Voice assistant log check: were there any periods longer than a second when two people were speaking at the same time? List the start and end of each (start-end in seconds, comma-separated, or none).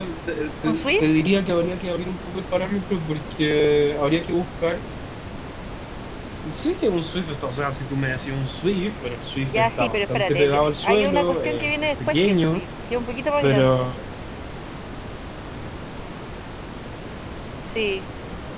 9.5-12.6